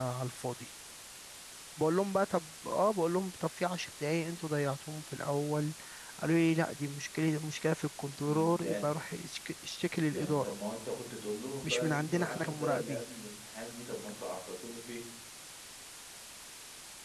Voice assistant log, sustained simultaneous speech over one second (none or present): present